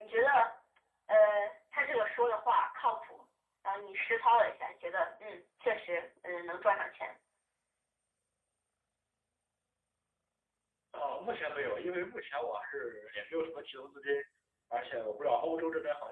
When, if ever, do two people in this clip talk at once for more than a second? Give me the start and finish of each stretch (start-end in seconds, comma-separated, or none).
none